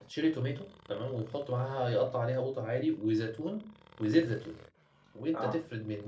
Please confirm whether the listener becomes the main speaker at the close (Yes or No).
No